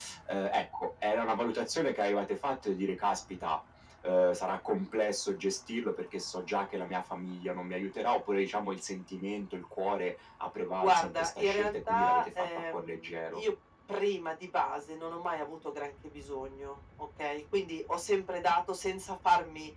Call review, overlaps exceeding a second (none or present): present